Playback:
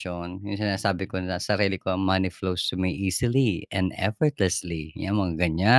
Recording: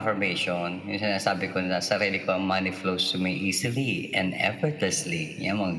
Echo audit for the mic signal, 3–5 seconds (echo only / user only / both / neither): echo only